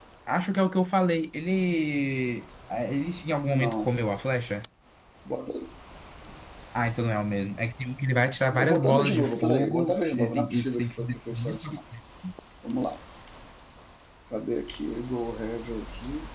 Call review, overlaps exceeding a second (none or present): present